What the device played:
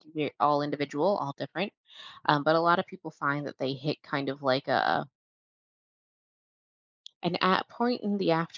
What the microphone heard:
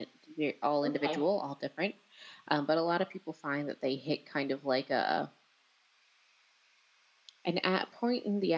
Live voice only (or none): okay,